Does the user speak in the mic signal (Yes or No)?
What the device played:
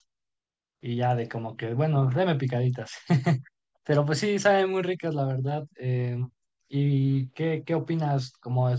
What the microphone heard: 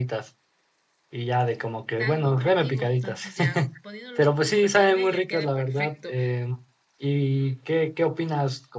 Yes